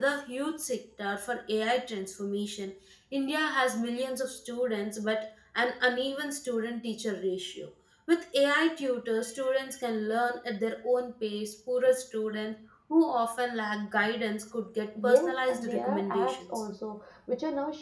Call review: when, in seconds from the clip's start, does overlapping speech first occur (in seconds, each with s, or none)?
14.9 s